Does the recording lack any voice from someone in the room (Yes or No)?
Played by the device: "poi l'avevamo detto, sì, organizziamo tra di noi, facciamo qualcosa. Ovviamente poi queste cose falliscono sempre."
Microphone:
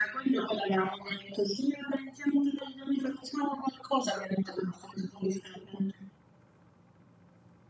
Yes